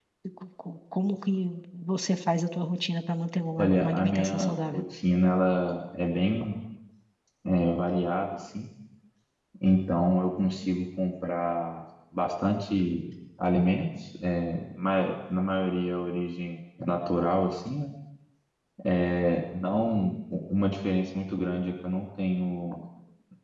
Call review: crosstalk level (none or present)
present